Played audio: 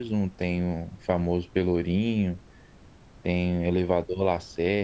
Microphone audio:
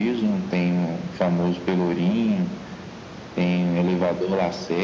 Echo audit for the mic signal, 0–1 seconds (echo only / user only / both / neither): echo only